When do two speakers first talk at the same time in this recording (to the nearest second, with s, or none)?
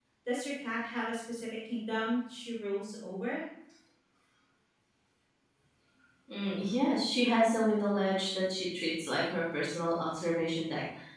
none